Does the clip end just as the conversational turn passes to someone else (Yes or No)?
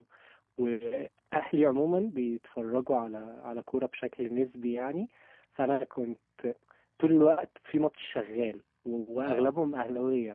No